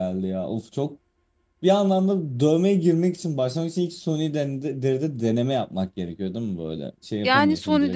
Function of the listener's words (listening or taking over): taking over